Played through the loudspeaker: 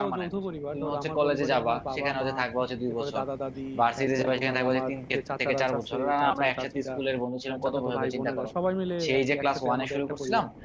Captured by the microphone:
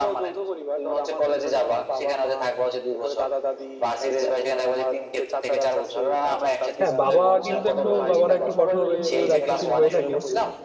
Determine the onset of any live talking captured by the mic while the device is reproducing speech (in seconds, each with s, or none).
6.8 s